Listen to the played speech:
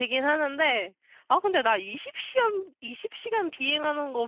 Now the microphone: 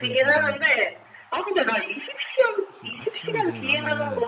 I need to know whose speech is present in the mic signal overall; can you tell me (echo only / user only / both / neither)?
both